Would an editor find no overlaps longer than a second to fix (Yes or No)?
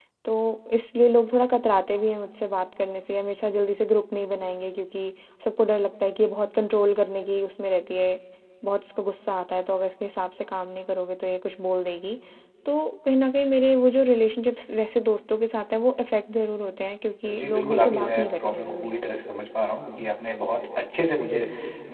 No